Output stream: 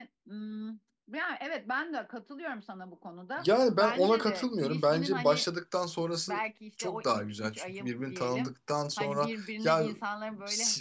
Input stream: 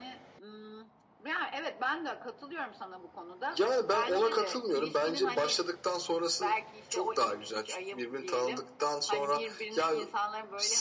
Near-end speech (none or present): none